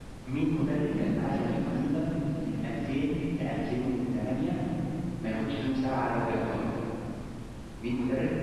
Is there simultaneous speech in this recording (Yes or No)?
Yes